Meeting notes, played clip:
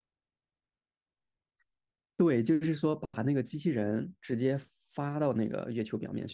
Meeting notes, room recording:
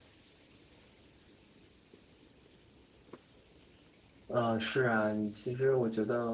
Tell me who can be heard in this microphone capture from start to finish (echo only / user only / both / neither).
user only